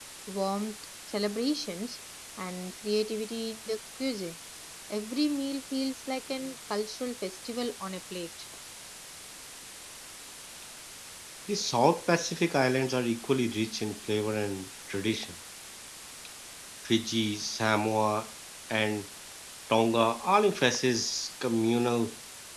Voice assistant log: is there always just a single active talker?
Yes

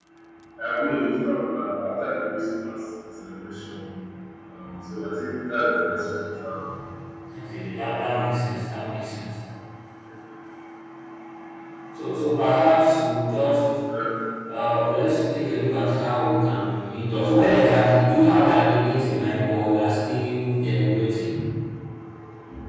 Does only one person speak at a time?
Yes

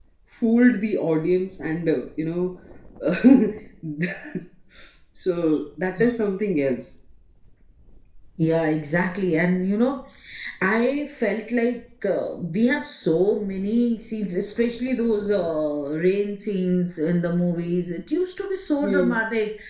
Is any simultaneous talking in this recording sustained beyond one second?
No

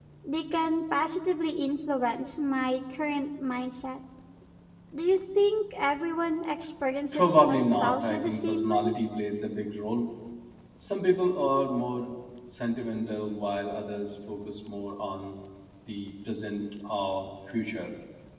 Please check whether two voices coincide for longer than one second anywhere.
Yes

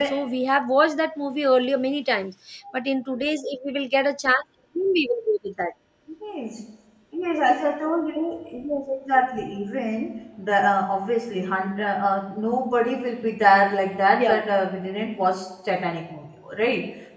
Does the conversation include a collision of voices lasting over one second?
No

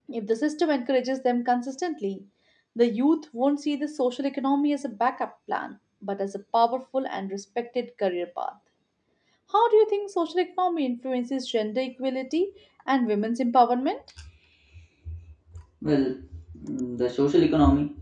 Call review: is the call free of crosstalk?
Yes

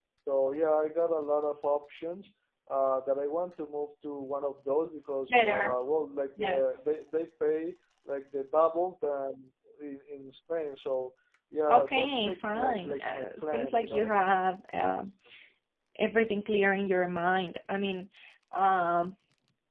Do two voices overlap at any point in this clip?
Yes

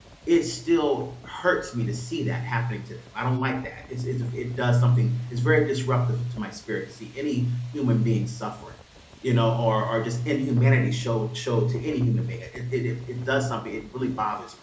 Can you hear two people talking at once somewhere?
No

